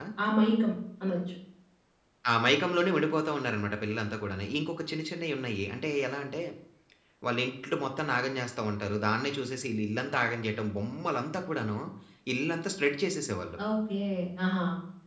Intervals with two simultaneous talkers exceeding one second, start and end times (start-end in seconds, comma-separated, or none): none